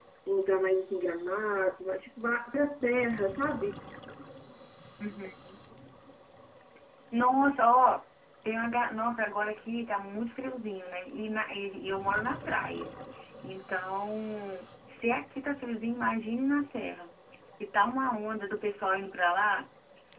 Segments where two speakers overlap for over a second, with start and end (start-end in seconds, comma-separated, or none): none